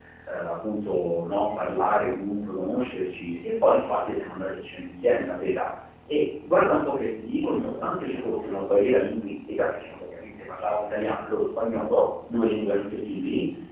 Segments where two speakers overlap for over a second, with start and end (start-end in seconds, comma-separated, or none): 7.4-9.0